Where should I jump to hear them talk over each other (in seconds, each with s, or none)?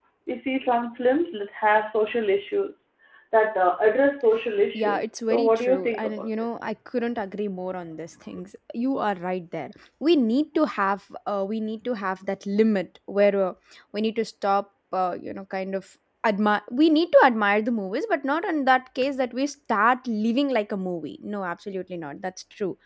4.7 s